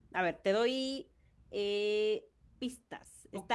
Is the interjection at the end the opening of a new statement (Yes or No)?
No